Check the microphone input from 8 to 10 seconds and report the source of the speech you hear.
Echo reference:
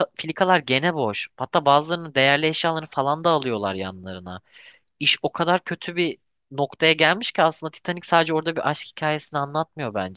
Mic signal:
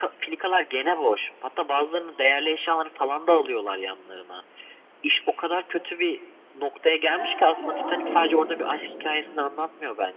both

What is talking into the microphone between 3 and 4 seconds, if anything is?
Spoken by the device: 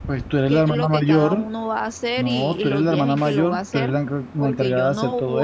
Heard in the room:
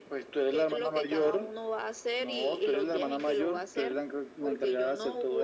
echo only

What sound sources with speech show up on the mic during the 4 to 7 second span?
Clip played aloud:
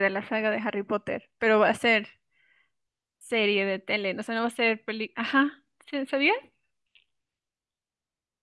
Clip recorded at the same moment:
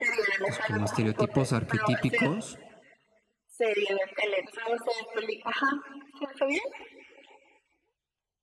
echo only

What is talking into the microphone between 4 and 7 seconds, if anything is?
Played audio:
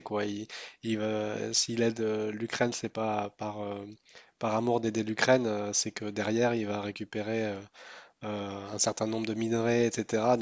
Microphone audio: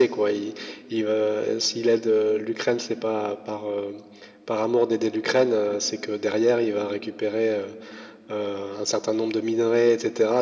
echo only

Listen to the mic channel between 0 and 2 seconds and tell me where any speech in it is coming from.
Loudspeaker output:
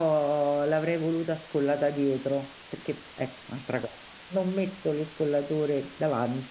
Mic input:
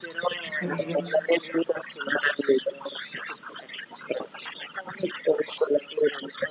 both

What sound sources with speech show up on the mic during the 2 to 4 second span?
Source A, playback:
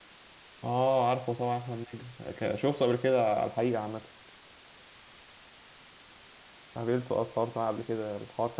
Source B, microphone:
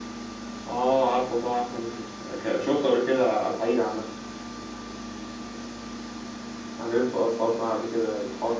echo only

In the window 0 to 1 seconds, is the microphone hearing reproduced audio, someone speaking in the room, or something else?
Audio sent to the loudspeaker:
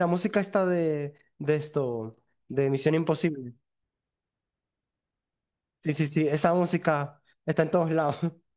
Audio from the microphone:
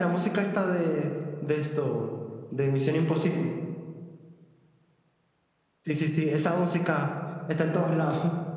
echo only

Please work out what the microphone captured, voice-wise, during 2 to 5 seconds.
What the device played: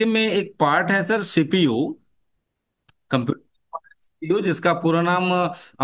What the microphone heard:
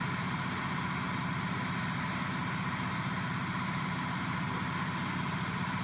neither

